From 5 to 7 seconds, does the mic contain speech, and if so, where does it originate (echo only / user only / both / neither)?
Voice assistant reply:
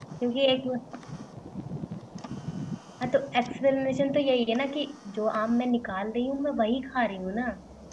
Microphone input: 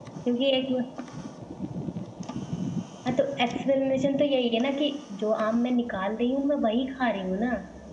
echo only